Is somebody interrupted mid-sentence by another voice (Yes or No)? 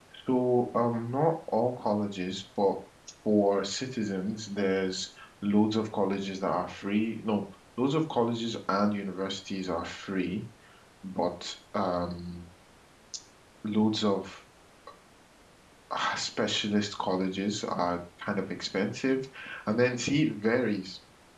No